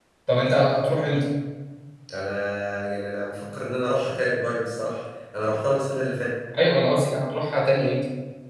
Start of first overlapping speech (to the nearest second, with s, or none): none